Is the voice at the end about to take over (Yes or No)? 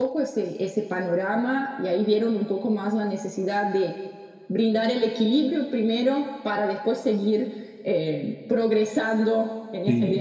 Yes